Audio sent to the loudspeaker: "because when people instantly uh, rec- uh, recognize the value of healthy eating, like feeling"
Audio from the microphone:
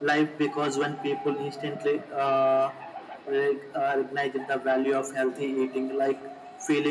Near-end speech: none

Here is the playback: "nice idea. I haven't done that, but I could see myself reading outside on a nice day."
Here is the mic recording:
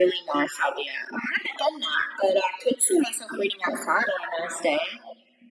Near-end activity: none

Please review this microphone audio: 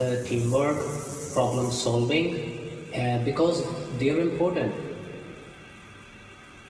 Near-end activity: present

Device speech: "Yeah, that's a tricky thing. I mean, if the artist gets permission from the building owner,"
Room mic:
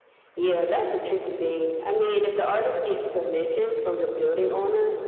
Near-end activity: none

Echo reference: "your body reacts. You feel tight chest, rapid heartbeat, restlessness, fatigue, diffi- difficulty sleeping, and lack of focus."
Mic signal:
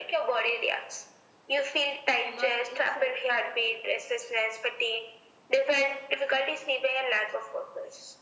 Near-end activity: present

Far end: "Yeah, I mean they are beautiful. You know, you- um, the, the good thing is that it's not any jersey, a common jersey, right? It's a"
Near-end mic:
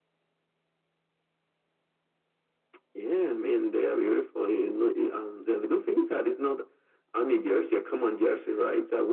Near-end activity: none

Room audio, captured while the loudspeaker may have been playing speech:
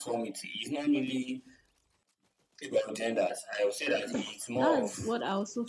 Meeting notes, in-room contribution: present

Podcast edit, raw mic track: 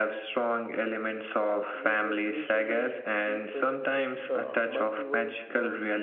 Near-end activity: present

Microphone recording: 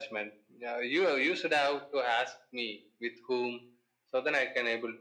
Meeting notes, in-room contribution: none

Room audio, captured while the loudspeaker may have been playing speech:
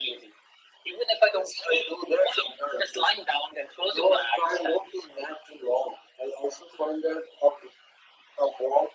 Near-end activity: none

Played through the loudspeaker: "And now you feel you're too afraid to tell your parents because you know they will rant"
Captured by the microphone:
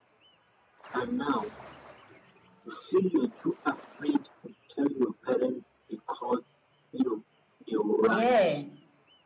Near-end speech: present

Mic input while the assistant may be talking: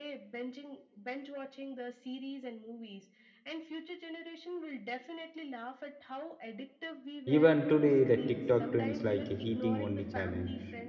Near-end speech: present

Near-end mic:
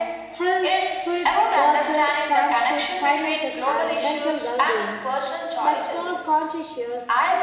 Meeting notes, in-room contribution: present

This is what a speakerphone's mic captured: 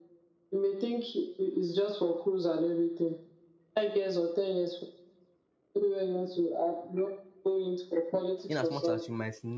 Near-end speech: present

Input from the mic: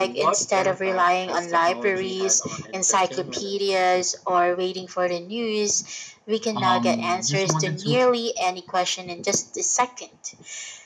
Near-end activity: present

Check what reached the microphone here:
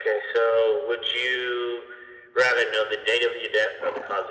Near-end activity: none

